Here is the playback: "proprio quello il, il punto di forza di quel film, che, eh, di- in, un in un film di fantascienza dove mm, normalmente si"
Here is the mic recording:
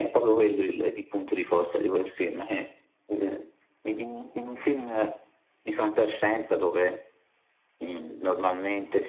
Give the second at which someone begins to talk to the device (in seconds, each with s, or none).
none